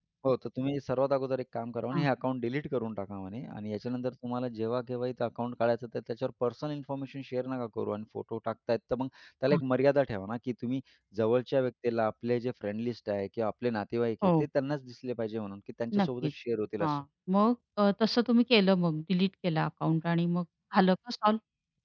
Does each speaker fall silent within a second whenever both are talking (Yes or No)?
Yes